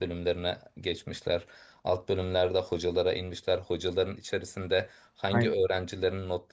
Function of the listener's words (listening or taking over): listening